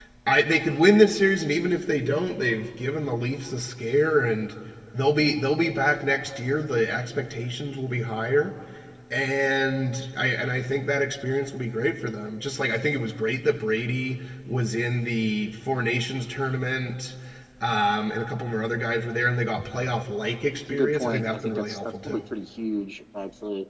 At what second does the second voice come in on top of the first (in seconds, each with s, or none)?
20.7 s